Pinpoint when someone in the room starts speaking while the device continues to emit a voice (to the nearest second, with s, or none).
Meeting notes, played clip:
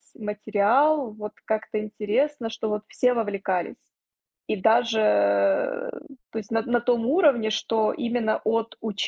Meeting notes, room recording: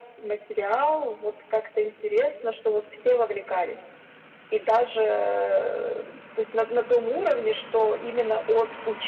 none